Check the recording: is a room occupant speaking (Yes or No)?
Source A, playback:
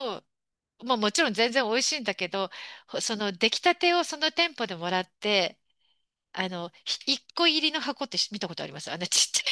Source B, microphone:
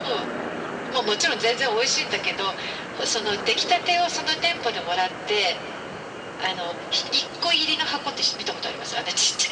No